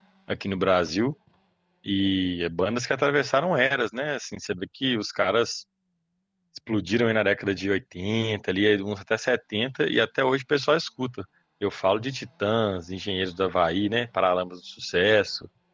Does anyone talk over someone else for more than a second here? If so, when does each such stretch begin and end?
none

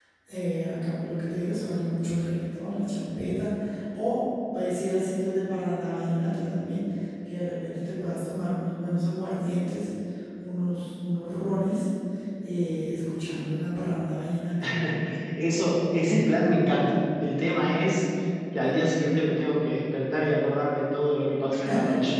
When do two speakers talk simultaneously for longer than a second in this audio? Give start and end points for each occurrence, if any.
none

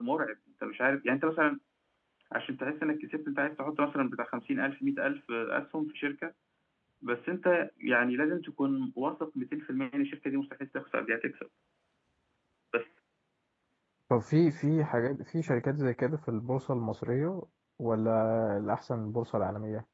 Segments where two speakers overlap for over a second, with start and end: none

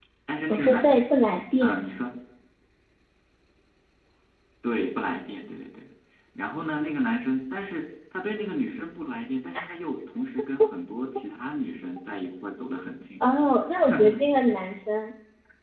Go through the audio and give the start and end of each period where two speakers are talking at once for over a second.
none

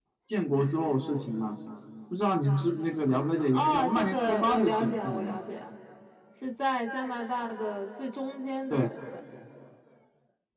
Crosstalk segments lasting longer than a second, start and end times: 3.5-5.3

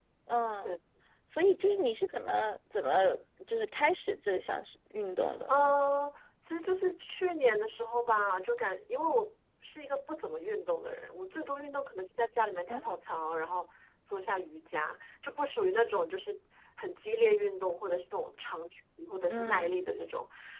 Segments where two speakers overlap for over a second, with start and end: none

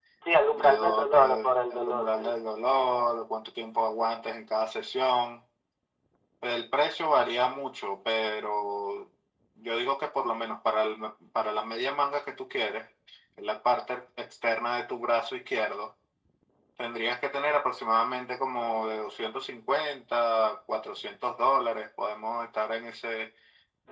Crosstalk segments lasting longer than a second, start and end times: 0.5-2.3

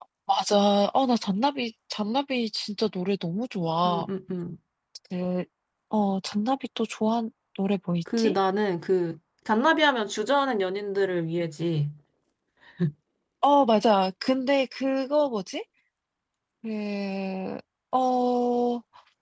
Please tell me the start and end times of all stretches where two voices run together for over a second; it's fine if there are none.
none

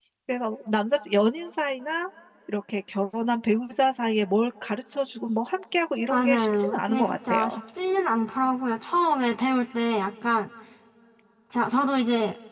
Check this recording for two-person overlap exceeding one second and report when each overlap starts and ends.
6.1-7.6

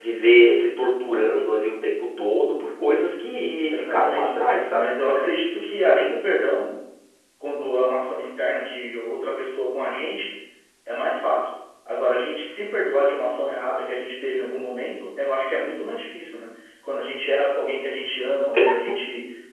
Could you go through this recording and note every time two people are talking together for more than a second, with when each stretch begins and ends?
3.7-4.9

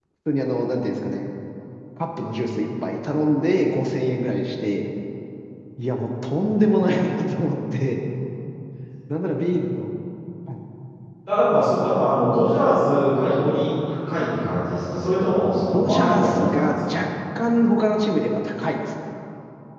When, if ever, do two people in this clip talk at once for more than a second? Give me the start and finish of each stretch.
15.7-17.0

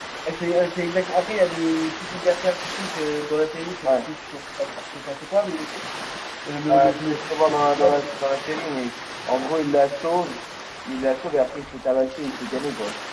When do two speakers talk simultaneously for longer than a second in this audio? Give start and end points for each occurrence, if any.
6.7-8.0

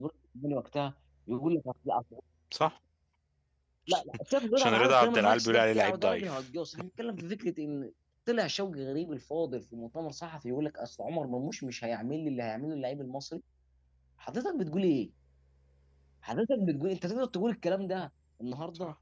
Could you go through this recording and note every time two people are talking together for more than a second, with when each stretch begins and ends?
4.6-6.4

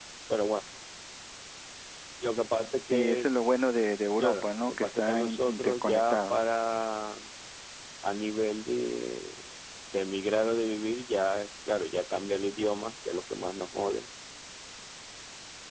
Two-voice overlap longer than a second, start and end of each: 4.2-6.4

